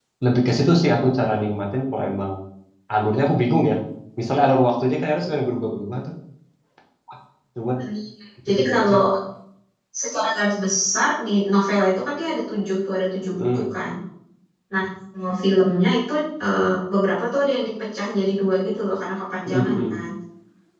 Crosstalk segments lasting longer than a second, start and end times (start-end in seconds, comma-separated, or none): none